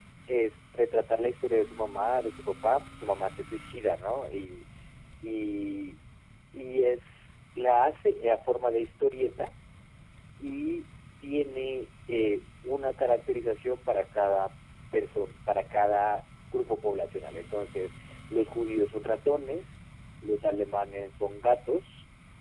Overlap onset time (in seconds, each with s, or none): none